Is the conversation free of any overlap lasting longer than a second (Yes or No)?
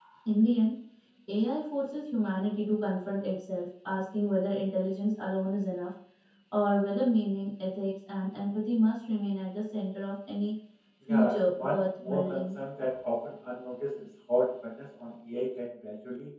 No